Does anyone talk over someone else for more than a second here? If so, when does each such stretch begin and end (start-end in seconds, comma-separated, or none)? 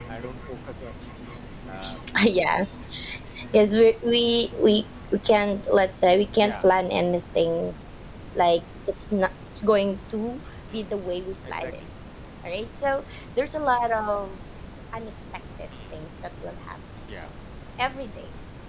none